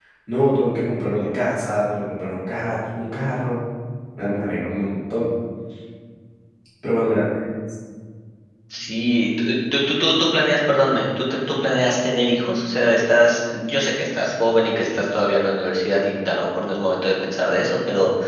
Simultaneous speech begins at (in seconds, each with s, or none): none